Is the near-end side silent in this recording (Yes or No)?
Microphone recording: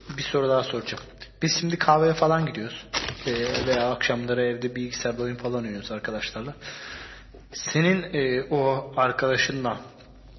Yes